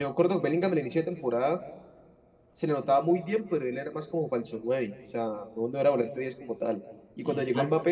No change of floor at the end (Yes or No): Yes